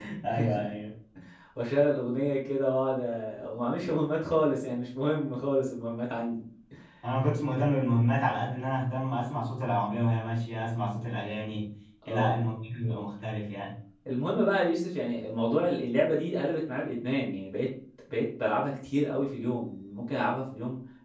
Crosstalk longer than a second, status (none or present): none